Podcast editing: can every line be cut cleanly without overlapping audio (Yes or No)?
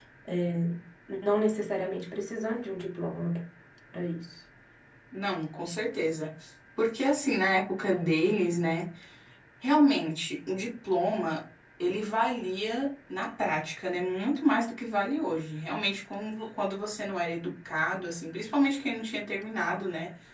Yes